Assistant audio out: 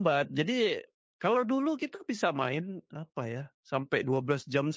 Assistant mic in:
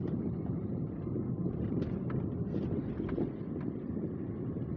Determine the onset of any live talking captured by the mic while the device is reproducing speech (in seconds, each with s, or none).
none